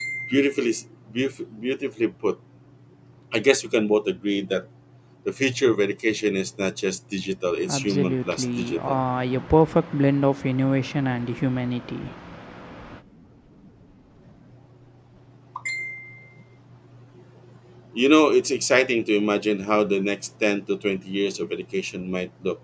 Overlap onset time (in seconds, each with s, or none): 7.7 s